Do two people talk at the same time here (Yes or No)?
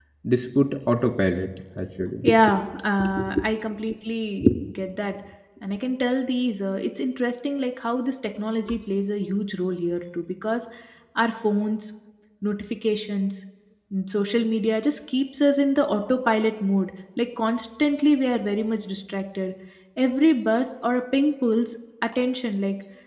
No